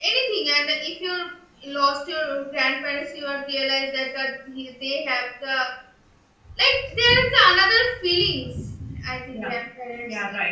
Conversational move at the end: taking over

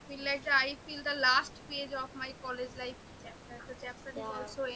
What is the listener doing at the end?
taking over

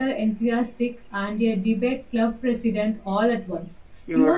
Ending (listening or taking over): taking over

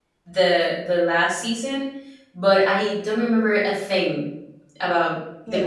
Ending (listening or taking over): listening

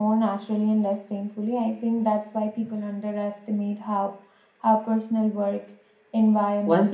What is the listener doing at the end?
taking over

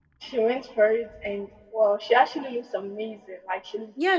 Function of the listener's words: taking over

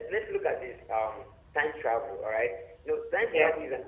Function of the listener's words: listening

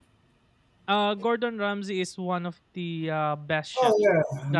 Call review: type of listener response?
taking over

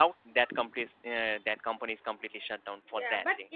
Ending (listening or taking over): taking over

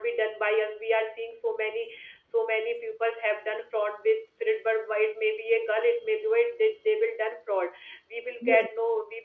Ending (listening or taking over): listening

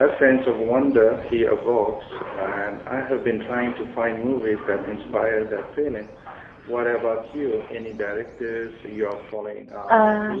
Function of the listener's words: taking over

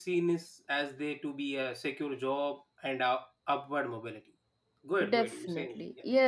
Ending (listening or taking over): taking over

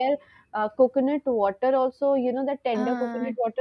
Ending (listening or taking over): listening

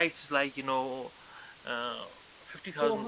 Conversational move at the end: listening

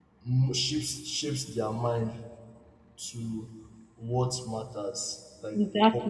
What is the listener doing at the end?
listening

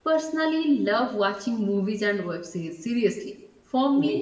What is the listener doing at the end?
listening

